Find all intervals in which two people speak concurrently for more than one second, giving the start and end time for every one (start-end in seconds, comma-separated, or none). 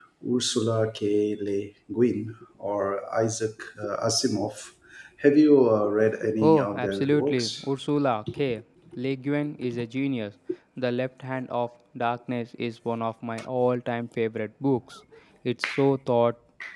6.4-7.6